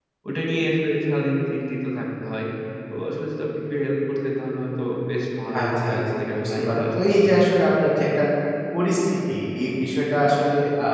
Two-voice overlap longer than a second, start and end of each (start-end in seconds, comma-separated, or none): 5.5-7.4